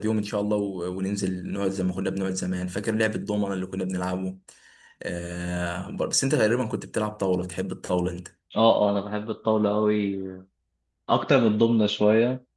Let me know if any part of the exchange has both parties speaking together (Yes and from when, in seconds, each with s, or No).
No